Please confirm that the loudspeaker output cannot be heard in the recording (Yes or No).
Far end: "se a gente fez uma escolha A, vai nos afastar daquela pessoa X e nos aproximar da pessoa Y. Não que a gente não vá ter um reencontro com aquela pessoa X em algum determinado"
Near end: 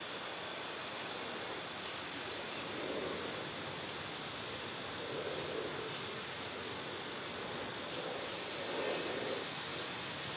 Yes